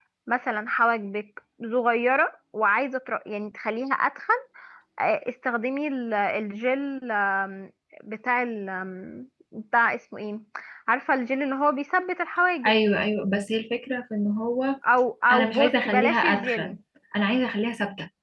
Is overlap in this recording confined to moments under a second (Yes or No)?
No